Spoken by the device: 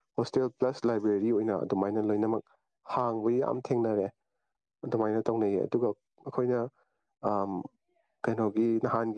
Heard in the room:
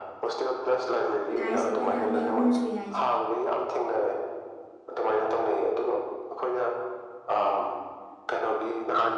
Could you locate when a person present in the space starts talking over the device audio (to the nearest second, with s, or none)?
1 s